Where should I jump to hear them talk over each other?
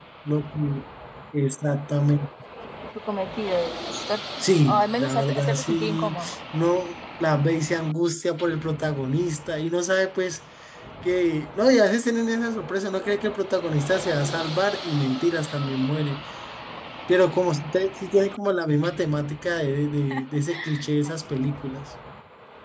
5 s

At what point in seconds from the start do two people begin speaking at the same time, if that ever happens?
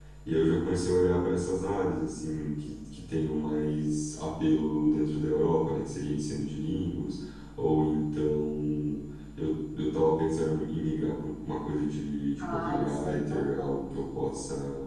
12 s

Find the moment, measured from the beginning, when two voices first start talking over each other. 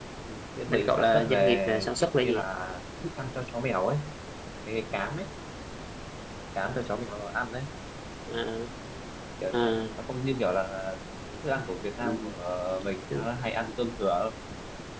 1 s

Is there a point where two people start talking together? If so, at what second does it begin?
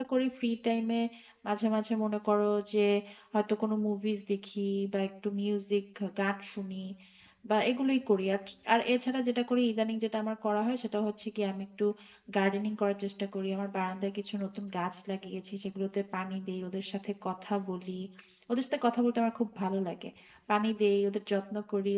none

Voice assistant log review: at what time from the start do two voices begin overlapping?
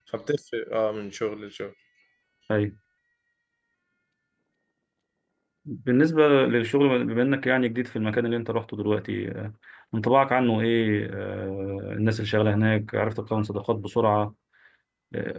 none

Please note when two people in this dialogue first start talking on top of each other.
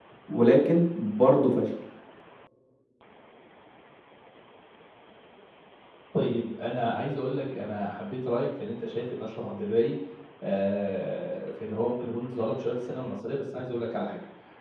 none

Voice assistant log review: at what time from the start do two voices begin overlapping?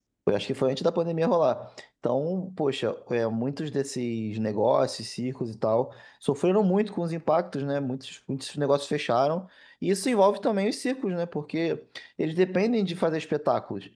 none

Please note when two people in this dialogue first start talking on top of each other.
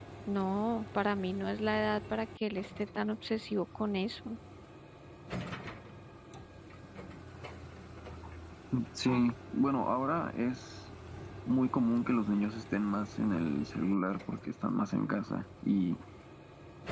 none

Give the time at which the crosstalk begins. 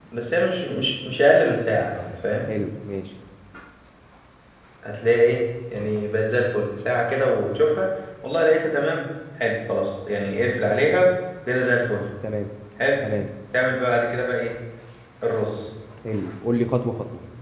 none

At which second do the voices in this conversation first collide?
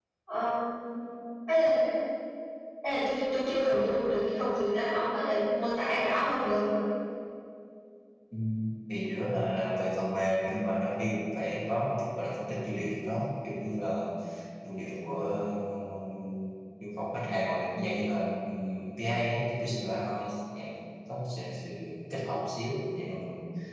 none

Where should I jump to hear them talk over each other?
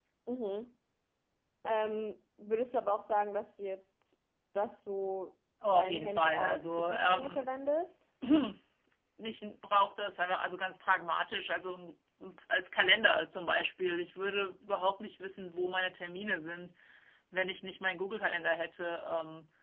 6 s

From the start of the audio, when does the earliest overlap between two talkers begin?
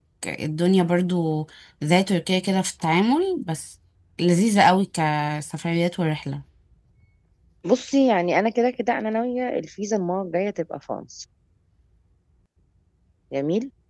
none

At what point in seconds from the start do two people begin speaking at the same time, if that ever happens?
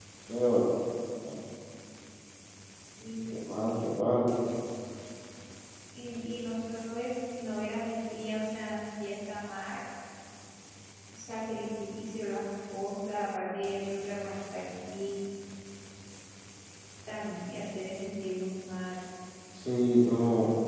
none

